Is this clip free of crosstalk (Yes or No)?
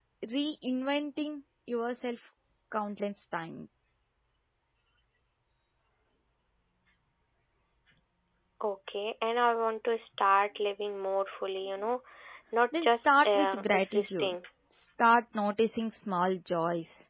No